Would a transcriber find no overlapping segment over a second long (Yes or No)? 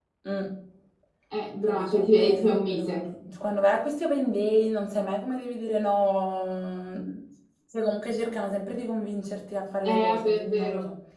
No